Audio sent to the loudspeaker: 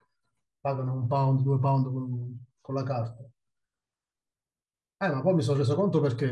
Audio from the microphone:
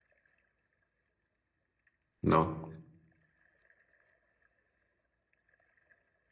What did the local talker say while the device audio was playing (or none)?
no?